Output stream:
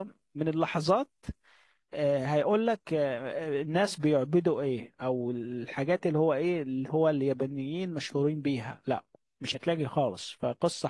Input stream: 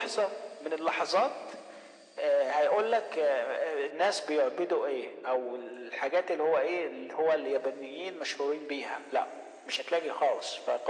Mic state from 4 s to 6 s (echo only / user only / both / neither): echo only